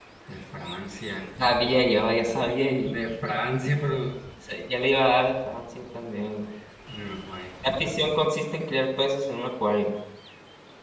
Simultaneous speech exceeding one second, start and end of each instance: none

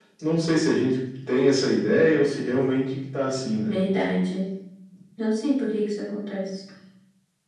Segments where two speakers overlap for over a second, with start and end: none

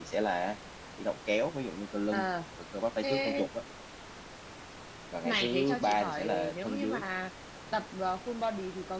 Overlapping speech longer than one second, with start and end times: 5.2-7.0

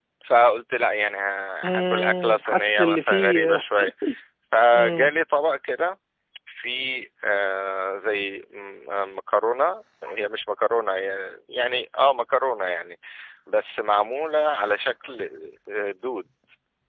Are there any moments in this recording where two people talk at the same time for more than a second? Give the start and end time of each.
1.6-3.6

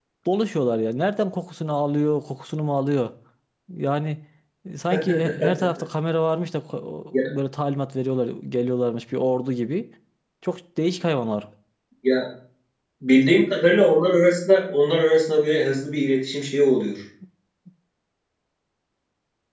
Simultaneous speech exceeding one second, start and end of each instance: none

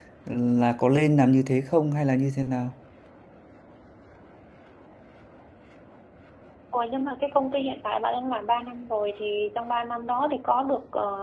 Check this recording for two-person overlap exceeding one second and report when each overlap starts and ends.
none

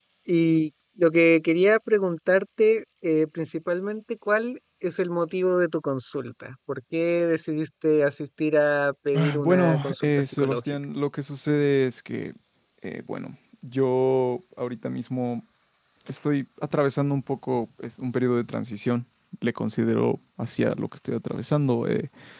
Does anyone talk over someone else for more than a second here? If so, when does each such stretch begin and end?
9.4-10.6

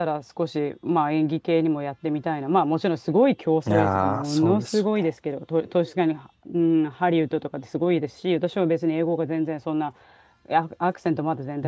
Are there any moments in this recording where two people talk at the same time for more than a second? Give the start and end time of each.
3.7-5.1

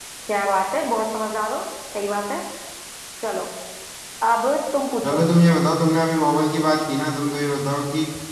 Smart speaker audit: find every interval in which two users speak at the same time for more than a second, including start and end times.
none

